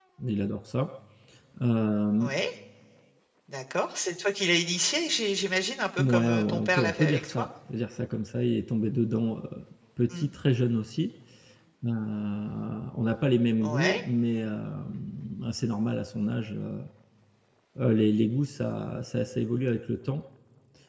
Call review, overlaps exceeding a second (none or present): present